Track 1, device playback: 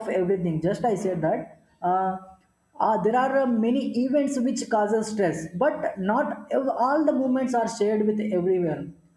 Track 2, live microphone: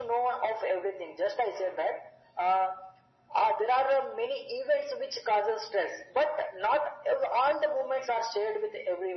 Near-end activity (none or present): none